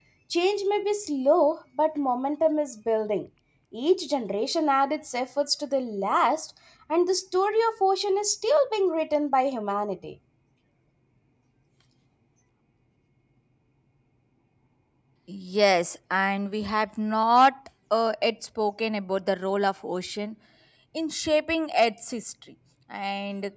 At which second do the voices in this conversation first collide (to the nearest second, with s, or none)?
none